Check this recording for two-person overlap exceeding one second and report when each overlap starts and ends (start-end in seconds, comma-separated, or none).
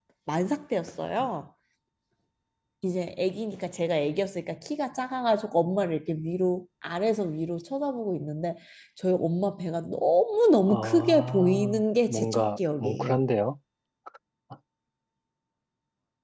10.7-13.2